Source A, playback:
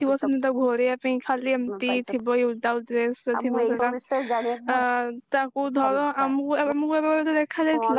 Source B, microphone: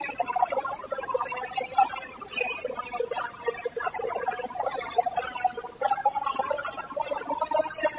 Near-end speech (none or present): none